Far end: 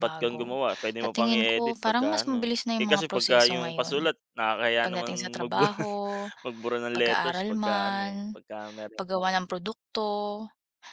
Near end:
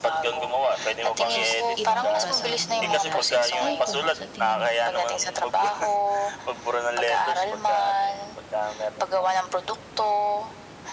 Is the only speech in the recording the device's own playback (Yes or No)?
No